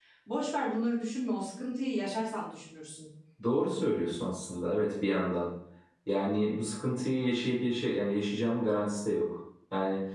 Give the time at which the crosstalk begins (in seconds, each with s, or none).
none